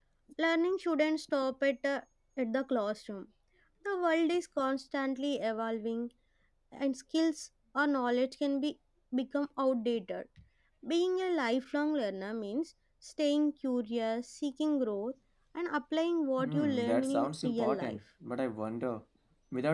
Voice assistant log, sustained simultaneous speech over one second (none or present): present